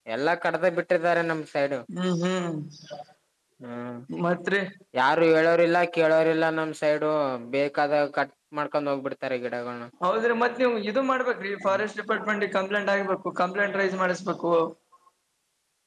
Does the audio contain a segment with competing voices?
No

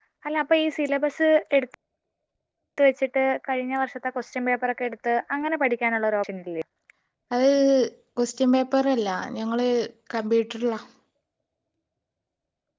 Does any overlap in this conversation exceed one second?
No

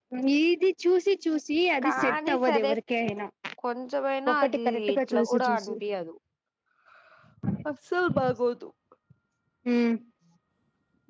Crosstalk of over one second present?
Yes, from 1.8 s

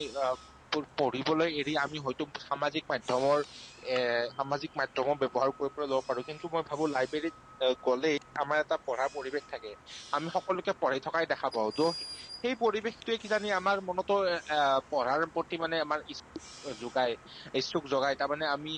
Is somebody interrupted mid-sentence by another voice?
No

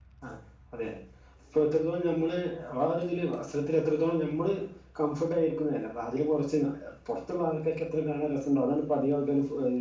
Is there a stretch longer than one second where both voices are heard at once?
No

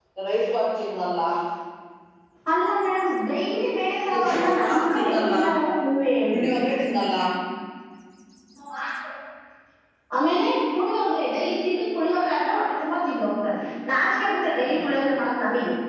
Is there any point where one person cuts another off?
Yes, from 4.1 s

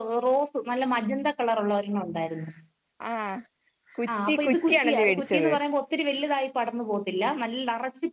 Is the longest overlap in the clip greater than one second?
Yes, from 4.3 s

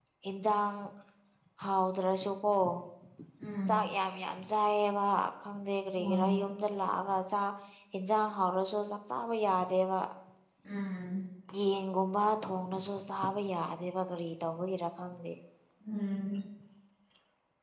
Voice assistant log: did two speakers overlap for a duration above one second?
No

